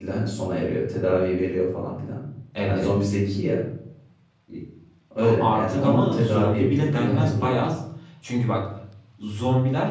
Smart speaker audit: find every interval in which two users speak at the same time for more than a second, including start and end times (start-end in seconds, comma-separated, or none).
5.2-7.7